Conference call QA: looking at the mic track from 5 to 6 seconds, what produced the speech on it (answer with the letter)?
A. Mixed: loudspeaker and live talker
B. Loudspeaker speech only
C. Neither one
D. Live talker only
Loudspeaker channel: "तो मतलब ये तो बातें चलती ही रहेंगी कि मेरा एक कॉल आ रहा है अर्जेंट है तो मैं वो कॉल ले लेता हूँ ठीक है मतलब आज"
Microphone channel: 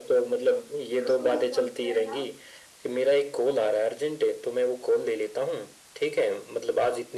B